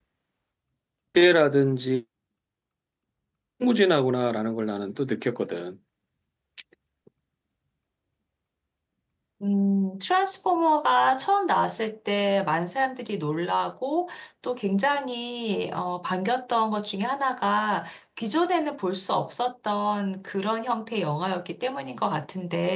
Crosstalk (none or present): none